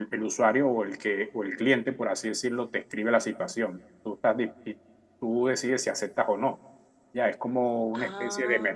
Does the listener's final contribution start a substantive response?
No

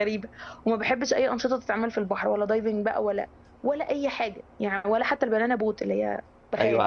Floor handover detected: Yes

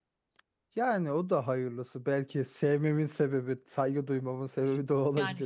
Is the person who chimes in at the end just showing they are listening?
No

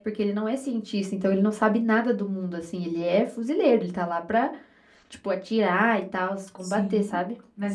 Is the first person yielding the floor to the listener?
Yes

